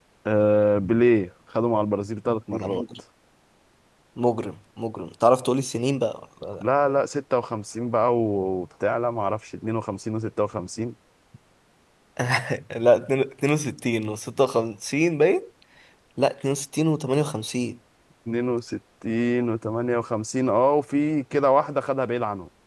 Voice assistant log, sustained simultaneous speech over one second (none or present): none